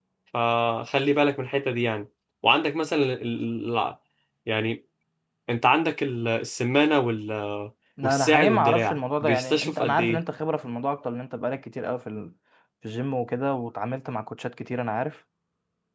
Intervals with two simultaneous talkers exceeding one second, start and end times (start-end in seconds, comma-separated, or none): 8.0-10.0